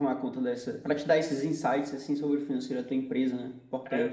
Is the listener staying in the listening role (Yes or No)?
No